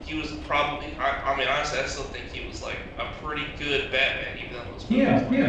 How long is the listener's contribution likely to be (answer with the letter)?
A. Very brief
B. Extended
B